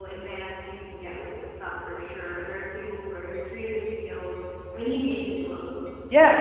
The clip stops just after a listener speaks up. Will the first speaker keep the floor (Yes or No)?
No